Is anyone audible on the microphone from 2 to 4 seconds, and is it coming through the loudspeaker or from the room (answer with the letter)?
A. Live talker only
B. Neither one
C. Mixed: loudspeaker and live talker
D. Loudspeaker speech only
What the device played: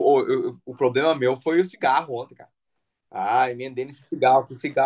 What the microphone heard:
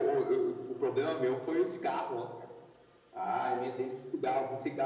D